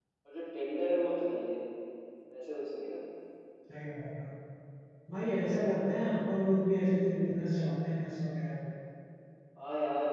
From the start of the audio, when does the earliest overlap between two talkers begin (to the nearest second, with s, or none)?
none